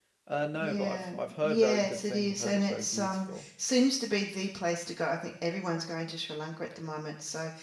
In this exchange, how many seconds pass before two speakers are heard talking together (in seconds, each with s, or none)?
0.6 s